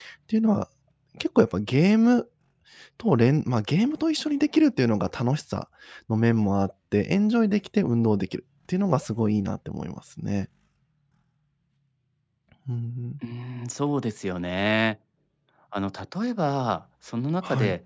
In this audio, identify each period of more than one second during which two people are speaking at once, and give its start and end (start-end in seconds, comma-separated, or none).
none